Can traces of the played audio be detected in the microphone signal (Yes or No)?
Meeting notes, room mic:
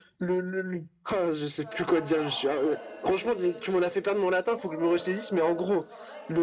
Yes